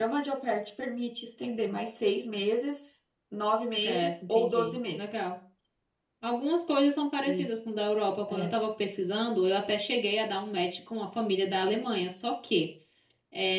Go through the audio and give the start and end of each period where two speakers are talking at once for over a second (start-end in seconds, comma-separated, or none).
3.8-5.2